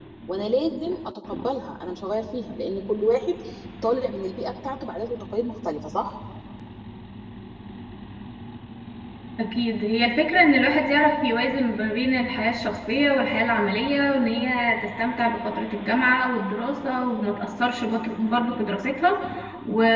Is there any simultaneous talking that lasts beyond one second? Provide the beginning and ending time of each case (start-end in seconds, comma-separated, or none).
none